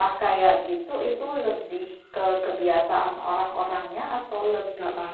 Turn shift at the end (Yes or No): No